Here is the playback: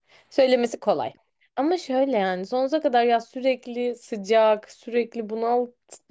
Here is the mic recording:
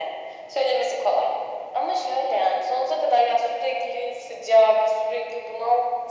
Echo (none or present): present